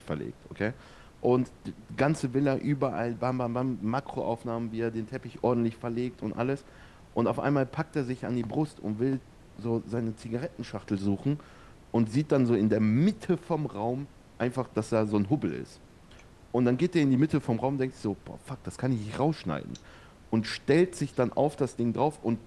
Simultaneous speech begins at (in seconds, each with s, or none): none